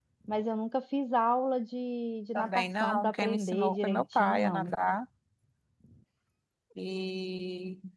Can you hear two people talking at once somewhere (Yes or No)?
Yes